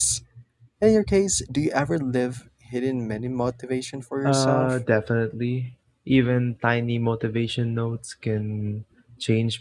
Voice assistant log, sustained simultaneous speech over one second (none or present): none